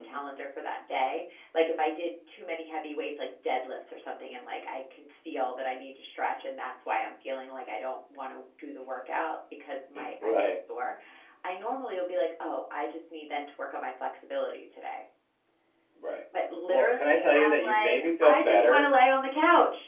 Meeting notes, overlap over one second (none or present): present